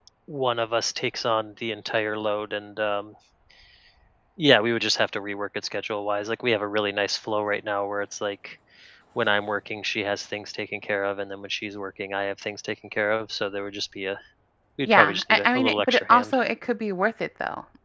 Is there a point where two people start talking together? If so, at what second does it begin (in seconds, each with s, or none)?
14.8 s